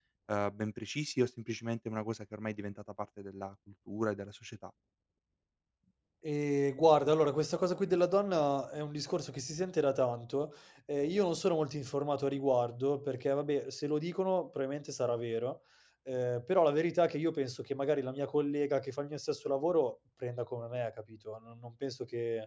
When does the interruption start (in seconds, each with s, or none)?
none